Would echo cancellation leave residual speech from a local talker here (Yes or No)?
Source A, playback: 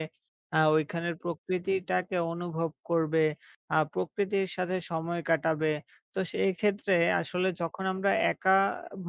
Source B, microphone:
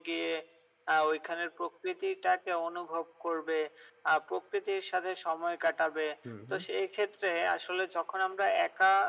Yes